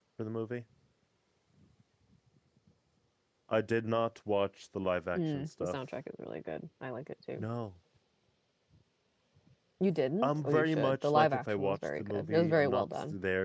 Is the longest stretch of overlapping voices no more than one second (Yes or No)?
No